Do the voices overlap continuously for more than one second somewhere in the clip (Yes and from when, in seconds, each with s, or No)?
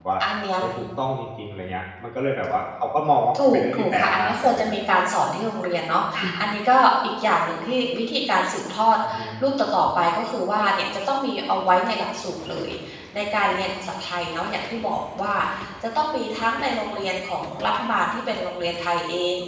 Yes, from 3.3 s